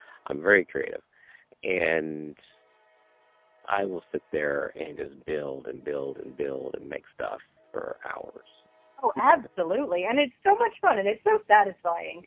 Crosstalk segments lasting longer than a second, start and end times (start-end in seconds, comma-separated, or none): none